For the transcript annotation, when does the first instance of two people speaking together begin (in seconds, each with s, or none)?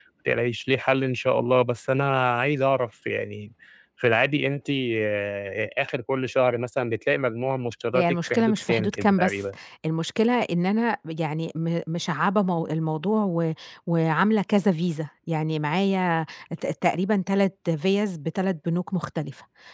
7.9 s